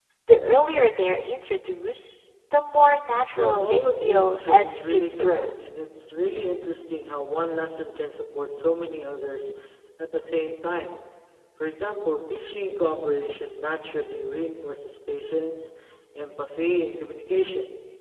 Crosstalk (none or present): present